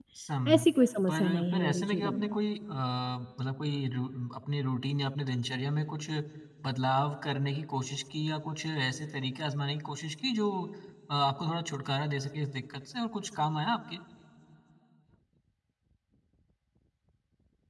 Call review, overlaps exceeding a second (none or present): present